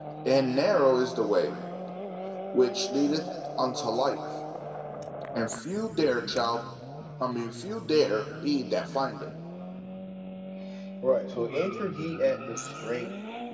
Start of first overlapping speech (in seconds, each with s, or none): none